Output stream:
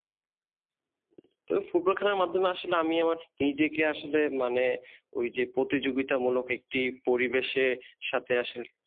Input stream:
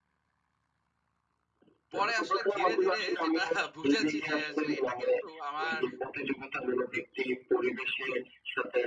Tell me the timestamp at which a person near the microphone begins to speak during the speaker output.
1.9 s

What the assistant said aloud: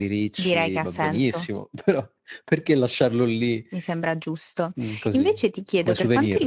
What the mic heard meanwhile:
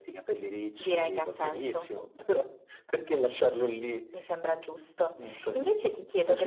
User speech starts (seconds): none

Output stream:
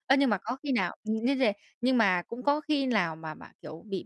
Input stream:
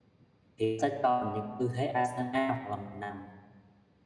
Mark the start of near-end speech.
0.6 s

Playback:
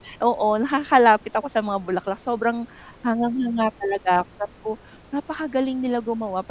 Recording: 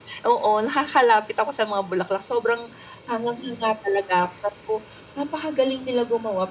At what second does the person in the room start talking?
none

